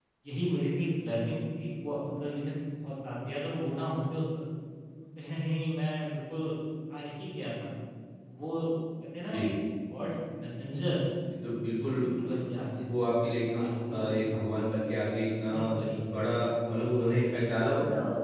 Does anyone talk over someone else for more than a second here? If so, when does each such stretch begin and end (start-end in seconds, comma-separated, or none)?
none